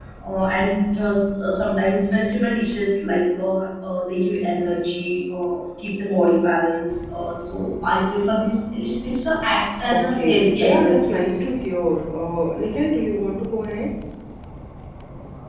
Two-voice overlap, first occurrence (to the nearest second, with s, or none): 10 s